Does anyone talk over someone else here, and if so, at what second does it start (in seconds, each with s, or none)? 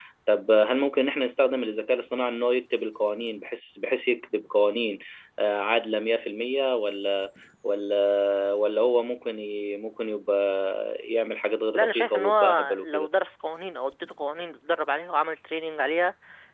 11.8 s